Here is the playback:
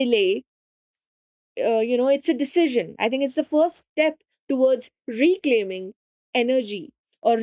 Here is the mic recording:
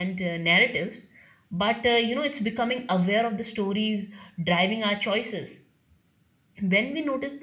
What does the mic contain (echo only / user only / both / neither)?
user only